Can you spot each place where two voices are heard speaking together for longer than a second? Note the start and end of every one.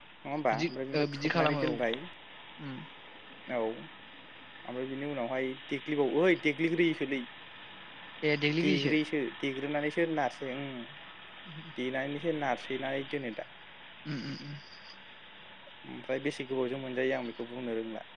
0.5-1.7

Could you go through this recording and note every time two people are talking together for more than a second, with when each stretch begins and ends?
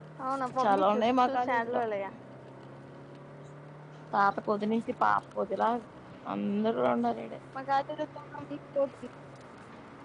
0.6-1.8

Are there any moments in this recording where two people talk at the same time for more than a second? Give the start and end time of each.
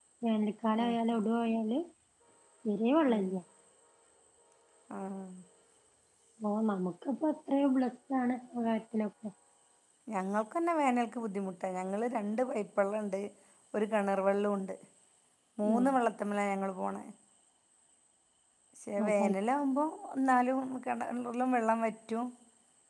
none

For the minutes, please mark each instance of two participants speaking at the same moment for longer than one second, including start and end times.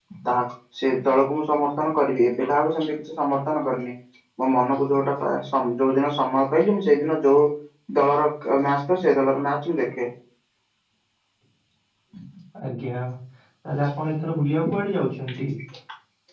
none

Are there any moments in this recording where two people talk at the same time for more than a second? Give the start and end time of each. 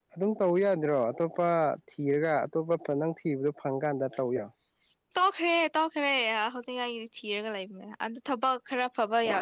none

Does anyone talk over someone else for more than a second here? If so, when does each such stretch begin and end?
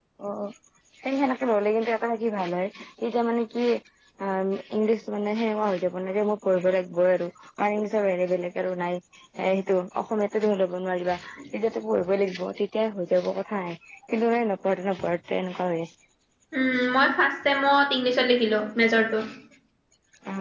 none

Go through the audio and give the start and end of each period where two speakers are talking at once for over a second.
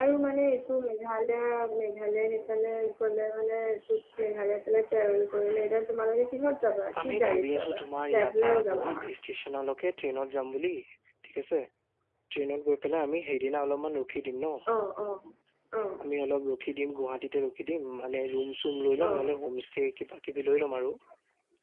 7.0-8.9

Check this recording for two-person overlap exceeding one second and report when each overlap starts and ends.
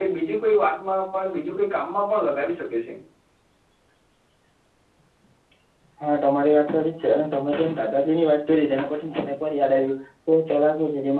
none

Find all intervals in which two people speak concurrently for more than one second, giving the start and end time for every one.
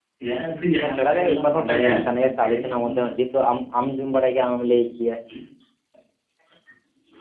0.8-3.1

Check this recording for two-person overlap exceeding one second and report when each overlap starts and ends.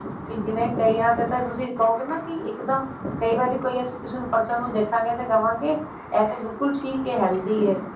none

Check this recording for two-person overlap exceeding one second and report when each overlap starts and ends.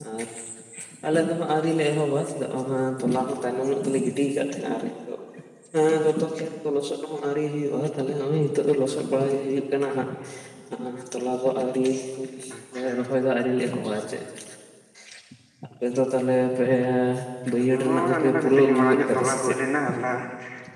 17.8-19.6

